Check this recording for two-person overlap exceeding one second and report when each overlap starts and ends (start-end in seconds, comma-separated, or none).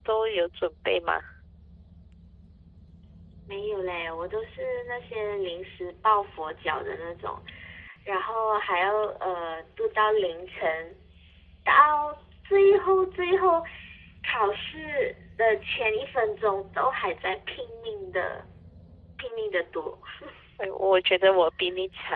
none